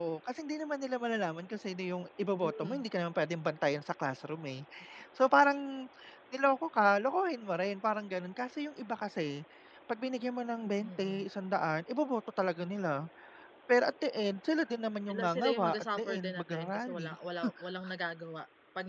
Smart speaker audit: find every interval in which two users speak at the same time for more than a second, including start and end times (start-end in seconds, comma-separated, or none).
15.1-17.1